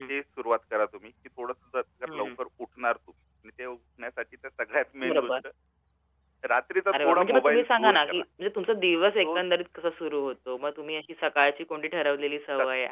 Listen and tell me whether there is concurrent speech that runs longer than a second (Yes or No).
Yes